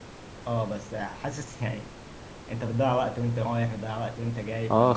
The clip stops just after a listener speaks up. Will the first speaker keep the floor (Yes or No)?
No